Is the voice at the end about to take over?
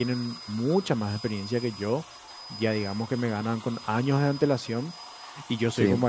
No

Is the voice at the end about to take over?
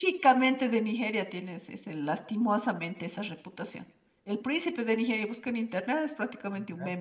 No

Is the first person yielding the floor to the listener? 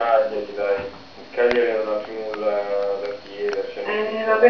Yes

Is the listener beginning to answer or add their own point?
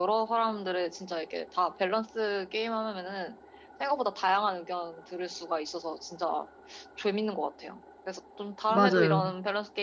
No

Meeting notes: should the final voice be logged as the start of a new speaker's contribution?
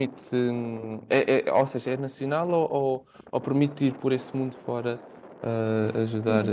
Yes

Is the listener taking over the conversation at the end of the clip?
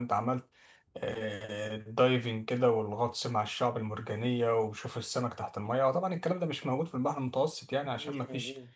No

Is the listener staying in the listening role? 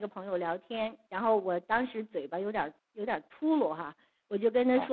Yes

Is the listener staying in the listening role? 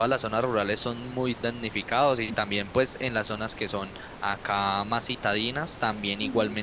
Yes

